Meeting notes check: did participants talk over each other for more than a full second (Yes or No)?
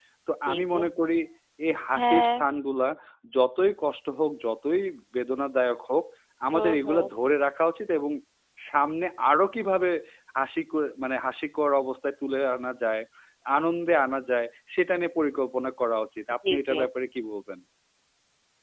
No